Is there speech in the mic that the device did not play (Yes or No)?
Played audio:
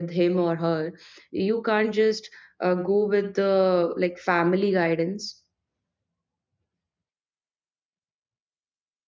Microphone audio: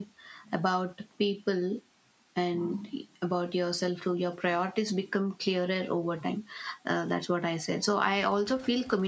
Yes